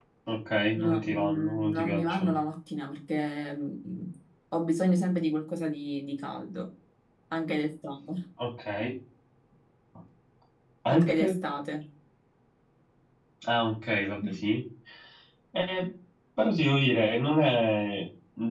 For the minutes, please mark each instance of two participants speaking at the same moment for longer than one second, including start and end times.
0.8-2.4

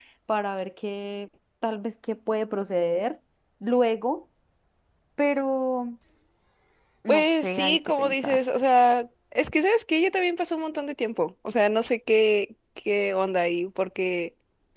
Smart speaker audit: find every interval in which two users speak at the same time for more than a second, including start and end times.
7.1-8.4

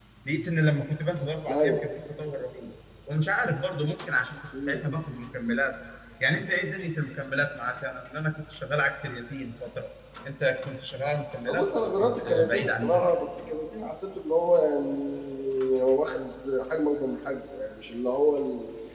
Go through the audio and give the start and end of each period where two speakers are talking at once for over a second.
11.5-13.1

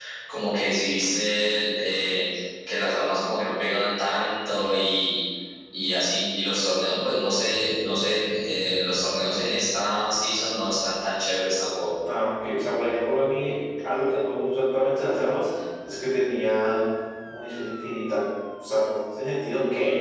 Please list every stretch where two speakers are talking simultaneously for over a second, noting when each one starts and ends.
none

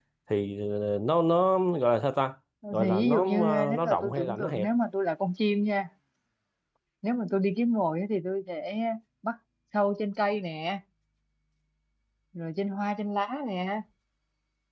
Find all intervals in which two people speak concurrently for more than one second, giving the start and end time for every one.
2.8-4.7

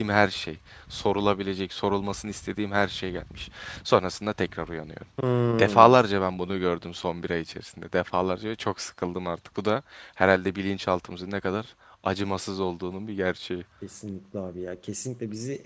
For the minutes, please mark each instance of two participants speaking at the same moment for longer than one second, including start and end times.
none

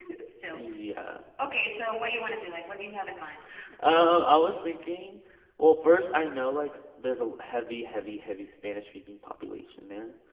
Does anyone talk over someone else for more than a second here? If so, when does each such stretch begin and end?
none

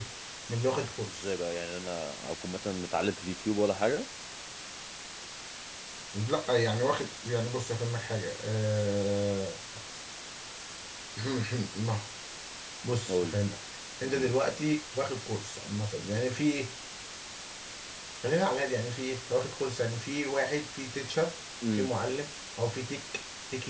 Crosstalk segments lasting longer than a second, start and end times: none

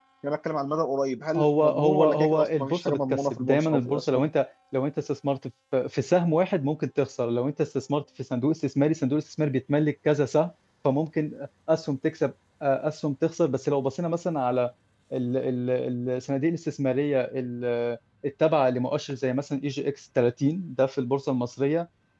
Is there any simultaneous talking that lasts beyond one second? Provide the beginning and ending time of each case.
1.4-4.3

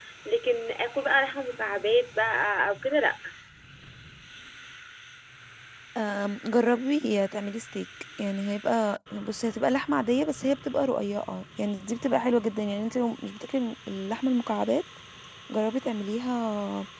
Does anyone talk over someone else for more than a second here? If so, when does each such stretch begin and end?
none

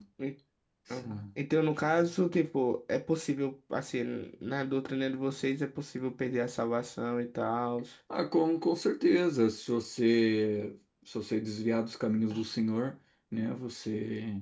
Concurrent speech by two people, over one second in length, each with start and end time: none

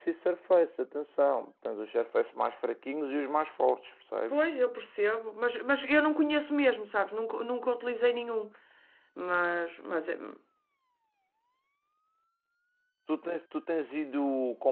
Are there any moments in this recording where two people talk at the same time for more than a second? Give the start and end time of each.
none

